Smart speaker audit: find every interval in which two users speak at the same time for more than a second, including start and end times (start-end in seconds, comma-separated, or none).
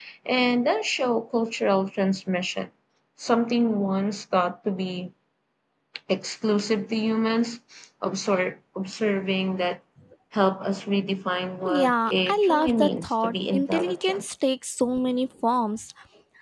11.8-14.2